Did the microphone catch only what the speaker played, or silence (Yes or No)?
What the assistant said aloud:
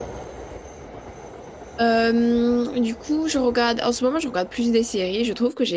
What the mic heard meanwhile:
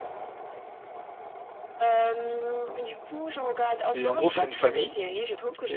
No